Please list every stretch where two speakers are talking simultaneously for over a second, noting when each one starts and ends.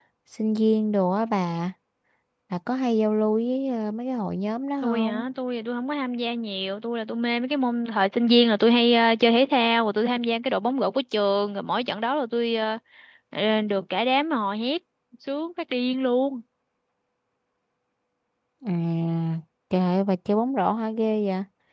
none

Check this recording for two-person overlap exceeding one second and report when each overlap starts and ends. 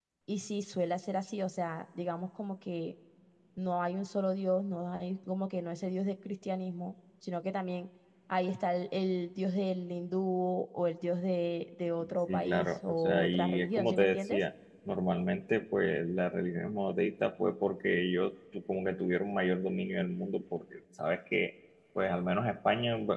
12.3-14.4

